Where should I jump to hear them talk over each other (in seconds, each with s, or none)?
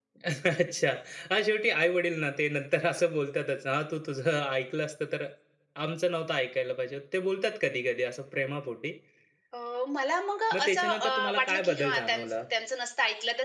10.5 s